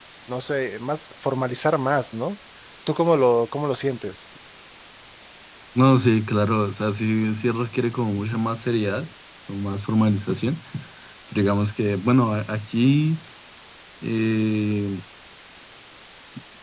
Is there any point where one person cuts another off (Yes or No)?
No